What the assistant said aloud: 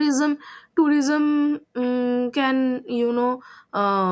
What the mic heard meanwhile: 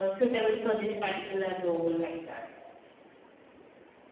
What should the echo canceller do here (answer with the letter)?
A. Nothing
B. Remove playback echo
A